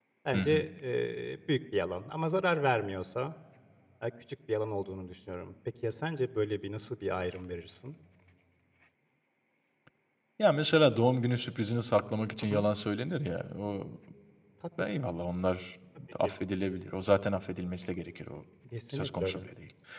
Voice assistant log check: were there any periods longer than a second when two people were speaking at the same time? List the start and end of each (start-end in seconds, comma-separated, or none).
none